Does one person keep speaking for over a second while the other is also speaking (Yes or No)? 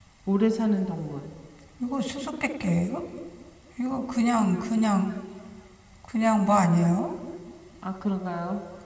No